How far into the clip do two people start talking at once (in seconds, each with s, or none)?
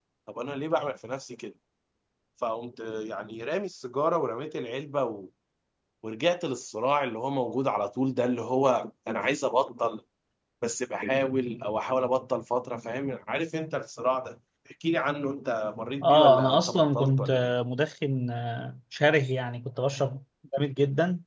16.0 s